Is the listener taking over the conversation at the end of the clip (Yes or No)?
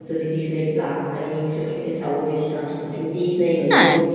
No